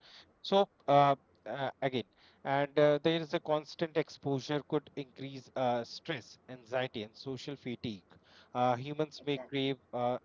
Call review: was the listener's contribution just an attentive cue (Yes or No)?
Yes